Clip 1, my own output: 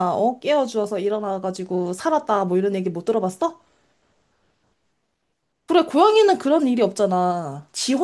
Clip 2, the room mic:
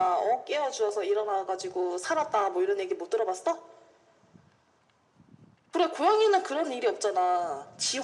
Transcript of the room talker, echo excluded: none

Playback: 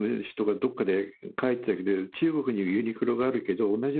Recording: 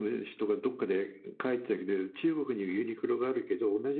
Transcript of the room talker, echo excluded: none

